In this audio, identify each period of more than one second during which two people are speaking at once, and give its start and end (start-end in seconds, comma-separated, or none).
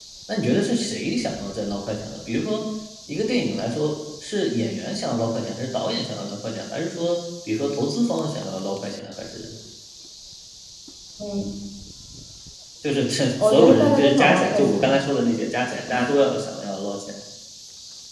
13.4-15.0